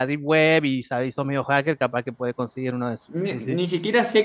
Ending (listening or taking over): taking over